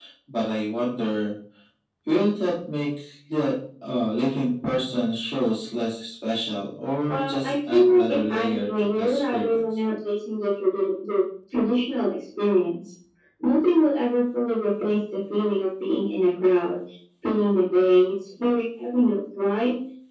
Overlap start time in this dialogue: 7.1 s

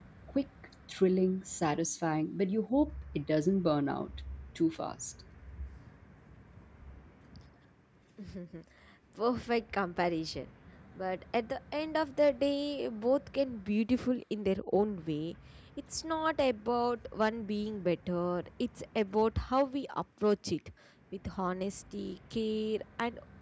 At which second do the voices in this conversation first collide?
none

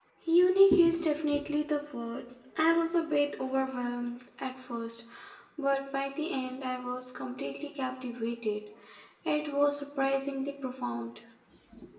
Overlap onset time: none

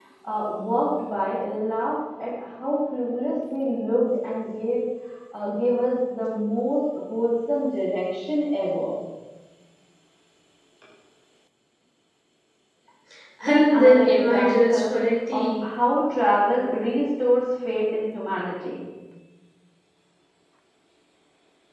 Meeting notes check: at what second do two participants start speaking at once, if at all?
13.5 s

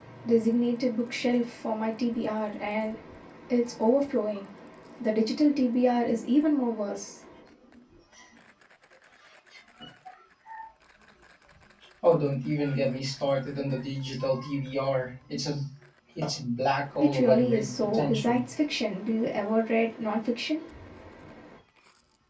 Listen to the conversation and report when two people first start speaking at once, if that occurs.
17.0 s

